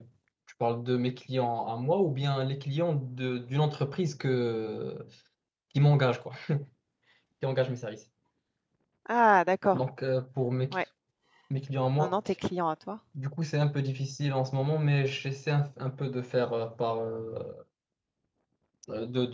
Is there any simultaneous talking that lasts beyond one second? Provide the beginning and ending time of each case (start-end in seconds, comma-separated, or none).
none